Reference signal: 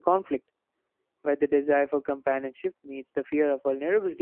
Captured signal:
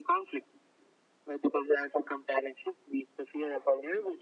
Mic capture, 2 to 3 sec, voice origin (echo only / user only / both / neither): echo only